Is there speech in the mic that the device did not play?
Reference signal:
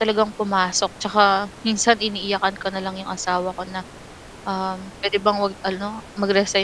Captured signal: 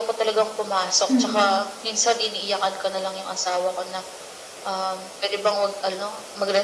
Yes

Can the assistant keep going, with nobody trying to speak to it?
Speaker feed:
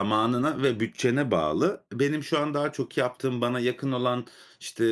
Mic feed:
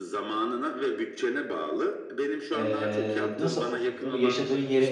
No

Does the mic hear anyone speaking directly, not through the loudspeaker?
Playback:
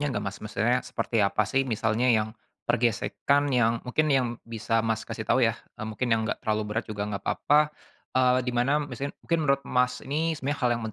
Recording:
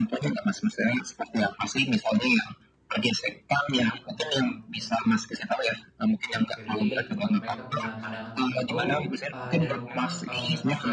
Yes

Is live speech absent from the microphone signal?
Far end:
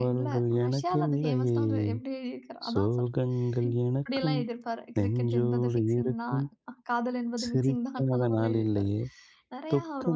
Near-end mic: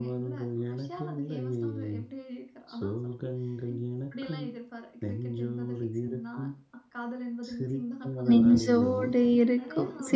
No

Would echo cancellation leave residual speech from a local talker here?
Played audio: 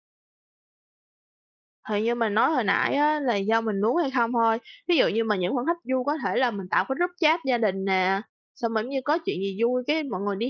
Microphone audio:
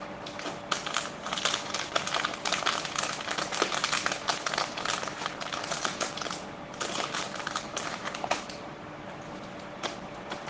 No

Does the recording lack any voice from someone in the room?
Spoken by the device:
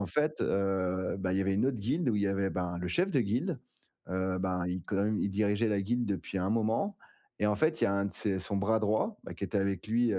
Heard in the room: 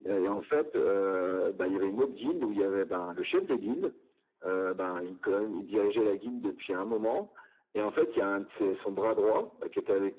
Yes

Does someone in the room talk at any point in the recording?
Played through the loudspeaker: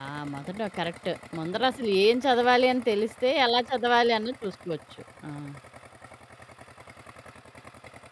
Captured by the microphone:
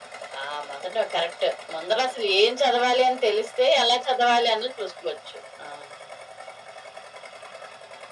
No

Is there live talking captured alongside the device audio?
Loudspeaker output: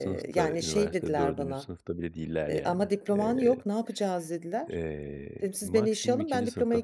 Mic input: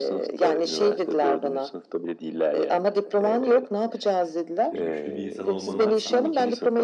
Yes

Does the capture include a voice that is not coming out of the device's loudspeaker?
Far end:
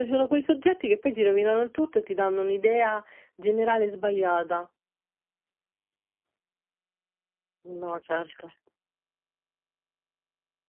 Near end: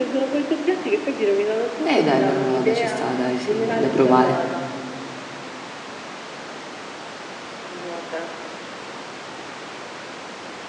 Yes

